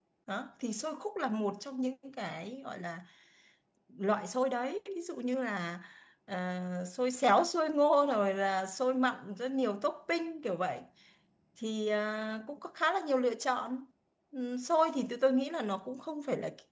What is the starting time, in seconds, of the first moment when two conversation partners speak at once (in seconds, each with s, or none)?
none